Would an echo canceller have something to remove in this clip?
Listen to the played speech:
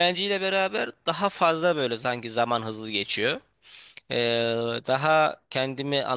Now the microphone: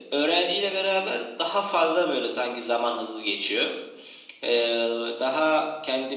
Yes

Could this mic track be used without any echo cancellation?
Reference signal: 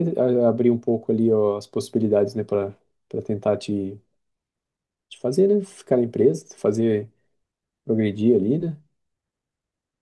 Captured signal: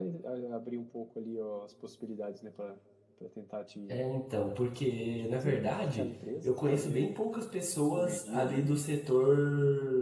No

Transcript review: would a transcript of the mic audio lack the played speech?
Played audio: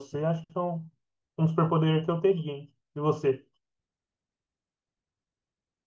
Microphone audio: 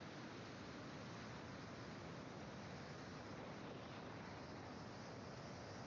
Yes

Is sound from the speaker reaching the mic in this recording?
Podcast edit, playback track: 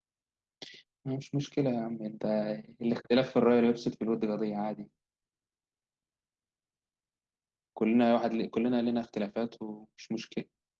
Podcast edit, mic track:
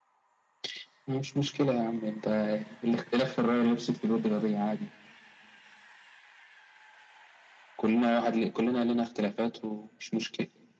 Yes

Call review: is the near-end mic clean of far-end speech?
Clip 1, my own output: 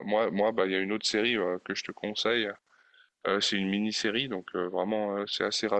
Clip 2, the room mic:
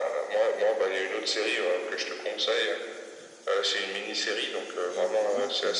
No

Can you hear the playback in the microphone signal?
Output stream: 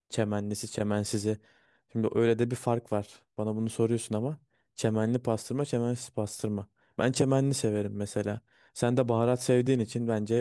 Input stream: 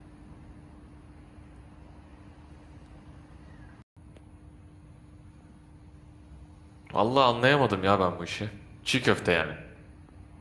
No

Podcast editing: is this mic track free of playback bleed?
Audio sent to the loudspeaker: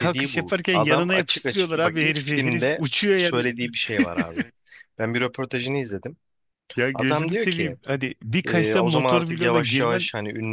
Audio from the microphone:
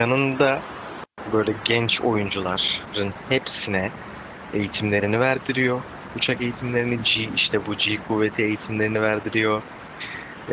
Yes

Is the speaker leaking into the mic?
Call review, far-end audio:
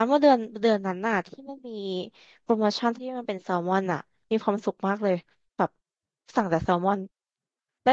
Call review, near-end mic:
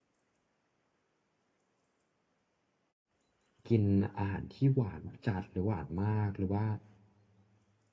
No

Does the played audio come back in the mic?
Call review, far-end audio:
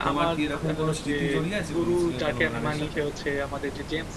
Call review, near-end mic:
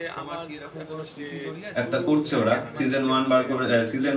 Yes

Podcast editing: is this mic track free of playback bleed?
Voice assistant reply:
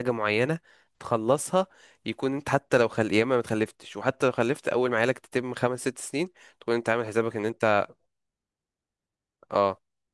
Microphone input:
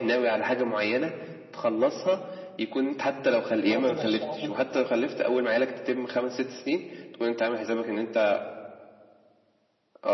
No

